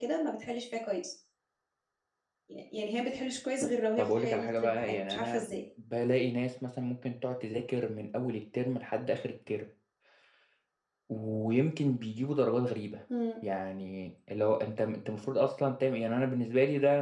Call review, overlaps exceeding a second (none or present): present